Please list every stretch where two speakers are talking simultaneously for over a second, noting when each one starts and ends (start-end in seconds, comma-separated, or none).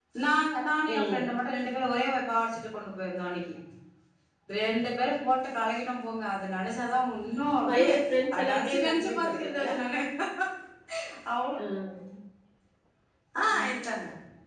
8.4-9.7